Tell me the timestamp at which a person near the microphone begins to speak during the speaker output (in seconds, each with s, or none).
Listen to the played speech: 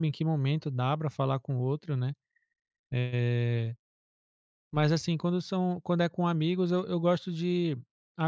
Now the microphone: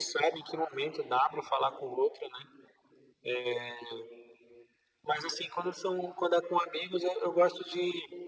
none